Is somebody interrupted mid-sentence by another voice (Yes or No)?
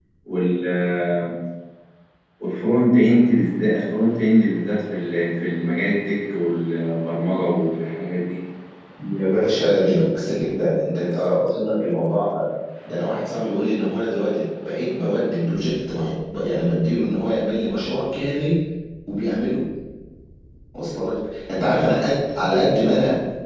No